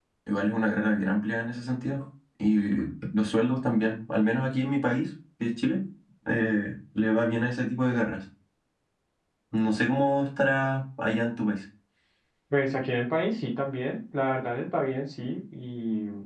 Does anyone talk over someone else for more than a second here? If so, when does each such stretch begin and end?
none

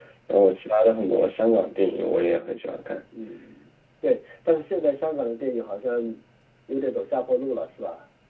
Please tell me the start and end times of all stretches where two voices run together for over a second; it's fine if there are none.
none

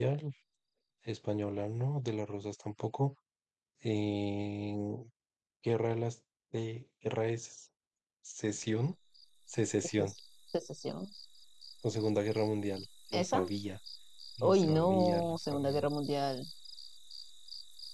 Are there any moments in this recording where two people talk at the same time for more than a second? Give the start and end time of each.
14.4-15.9

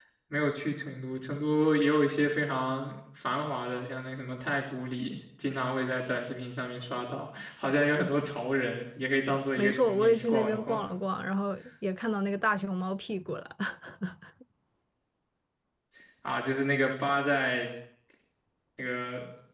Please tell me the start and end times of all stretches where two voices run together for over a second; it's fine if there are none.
9.6-10.8

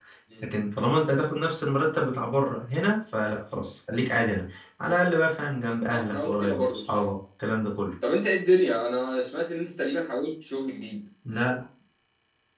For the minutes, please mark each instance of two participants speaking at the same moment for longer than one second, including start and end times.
5.9-7.1

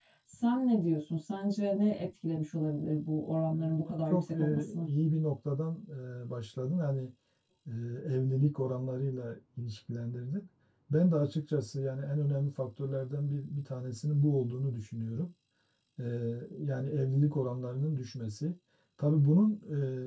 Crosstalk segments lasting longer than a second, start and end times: 3.5-4.9

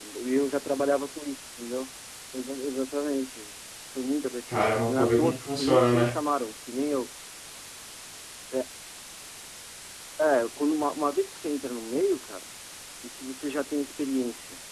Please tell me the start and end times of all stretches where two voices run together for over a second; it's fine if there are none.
4.5-6.1

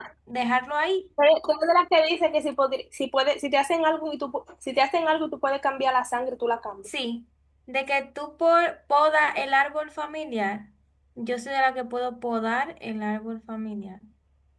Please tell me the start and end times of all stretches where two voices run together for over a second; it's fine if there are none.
none

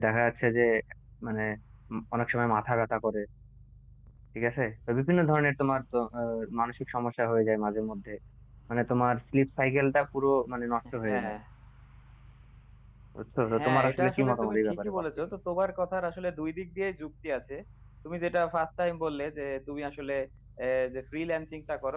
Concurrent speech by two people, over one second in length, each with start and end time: 13.6-15.0

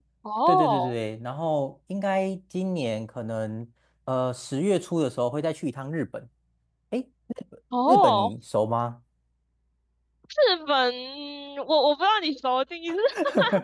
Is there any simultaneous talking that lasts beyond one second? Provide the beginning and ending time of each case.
none

